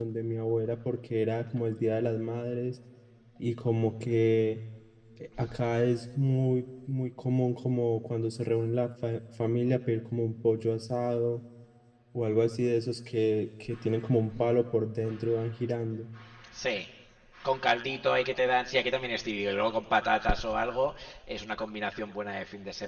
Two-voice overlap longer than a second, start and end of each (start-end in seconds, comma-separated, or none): none